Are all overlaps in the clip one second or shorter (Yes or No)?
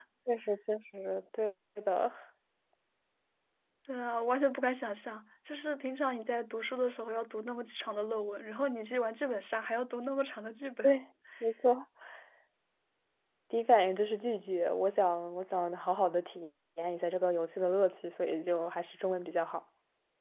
Yes